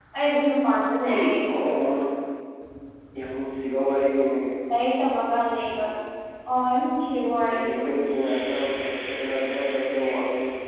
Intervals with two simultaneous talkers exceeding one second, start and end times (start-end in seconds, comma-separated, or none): none